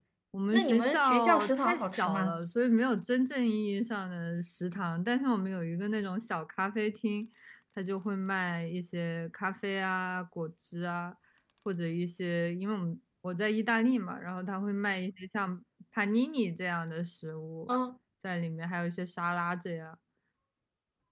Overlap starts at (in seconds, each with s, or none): 0.5 s